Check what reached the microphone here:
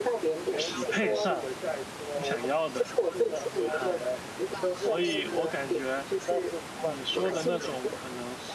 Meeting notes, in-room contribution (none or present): present